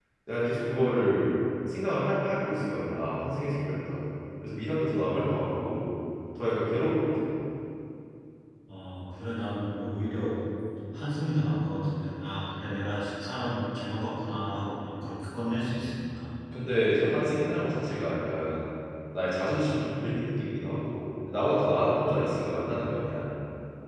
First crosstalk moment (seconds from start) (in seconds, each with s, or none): none